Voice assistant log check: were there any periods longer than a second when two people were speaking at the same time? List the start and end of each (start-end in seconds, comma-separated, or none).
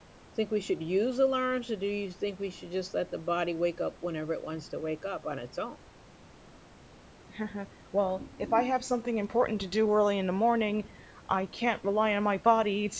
none